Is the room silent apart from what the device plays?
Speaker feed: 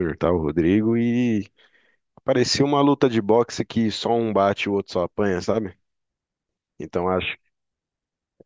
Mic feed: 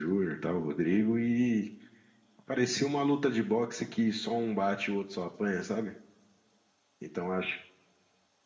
Yes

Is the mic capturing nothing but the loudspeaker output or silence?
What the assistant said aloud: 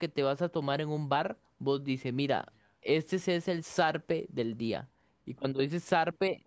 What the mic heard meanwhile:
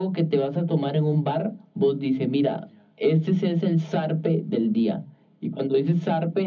Yes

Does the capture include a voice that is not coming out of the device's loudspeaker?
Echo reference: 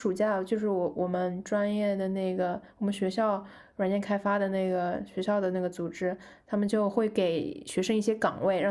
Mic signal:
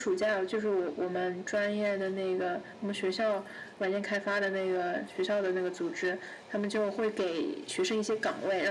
No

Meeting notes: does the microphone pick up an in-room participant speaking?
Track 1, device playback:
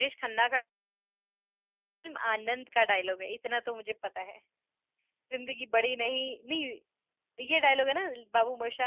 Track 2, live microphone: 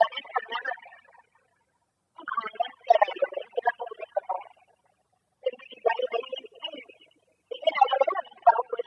No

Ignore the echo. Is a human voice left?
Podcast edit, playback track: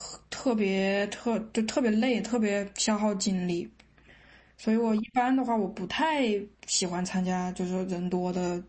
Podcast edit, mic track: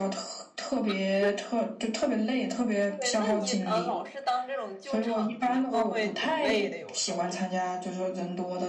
Yes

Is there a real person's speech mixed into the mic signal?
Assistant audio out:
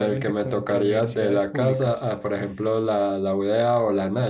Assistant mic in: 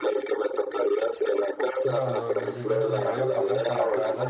Yes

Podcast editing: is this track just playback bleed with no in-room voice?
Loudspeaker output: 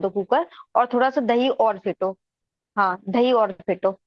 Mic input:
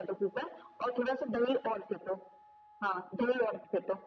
Yes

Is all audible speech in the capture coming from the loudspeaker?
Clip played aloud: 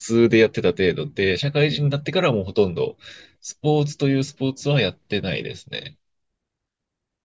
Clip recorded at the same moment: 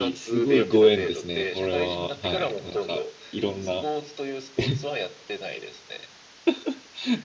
No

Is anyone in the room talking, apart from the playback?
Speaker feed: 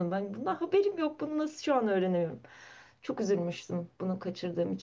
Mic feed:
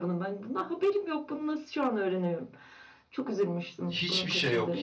Yes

